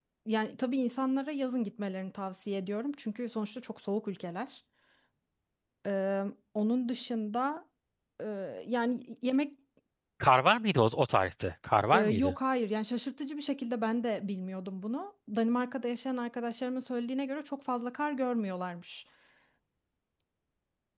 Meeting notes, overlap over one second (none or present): none